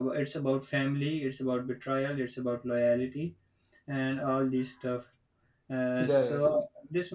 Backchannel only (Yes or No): Yes